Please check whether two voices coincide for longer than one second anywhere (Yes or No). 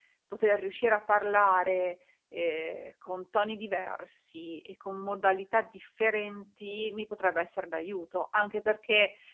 No